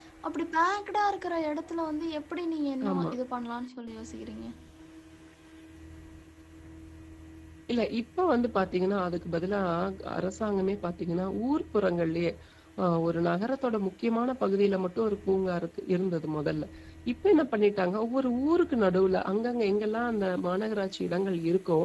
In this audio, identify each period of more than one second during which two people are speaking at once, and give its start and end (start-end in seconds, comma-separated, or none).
none